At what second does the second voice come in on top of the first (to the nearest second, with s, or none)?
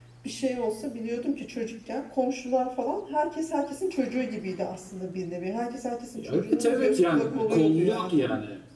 6 s